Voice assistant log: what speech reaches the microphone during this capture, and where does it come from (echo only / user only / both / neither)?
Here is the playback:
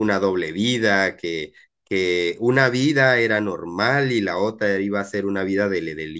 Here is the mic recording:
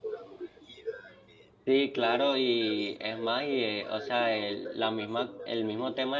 both